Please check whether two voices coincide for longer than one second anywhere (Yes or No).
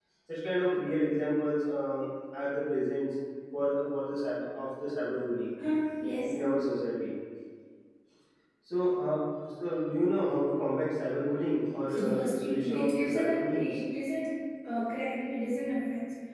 Yes